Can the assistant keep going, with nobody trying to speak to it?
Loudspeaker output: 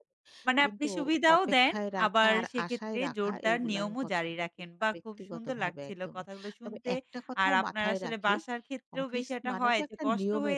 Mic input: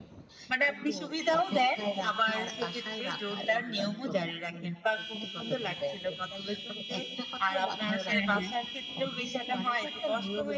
No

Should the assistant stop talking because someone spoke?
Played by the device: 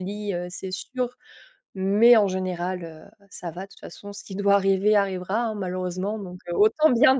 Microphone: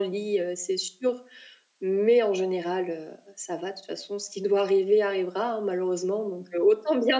No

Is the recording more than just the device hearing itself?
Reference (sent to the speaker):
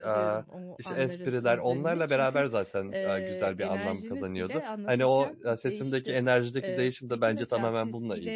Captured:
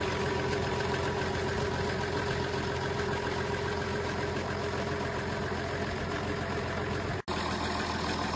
No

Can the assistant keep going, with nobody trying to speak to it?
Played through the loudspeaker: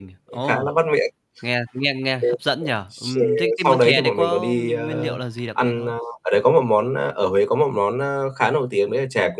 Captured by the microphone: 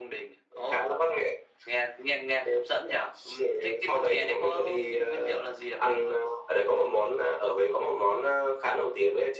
Yes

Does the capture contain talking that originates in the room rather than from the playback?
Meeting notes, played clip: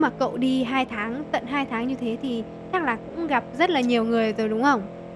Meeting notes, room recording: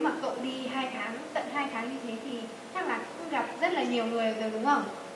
No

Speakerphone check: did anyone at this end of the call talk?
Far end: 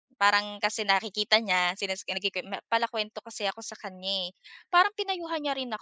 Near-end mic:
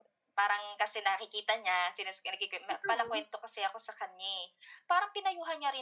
Yes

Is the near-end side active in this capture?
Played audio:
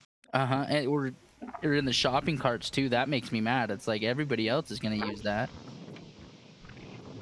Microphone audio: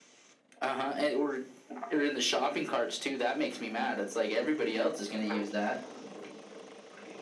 No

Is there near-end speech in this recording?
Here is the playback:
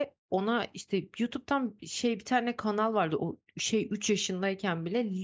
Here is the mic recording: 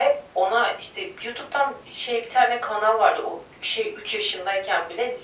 No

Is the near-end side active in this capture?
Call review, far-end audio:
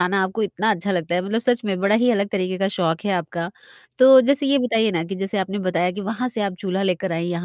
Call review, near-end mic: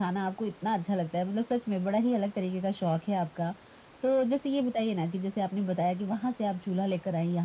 No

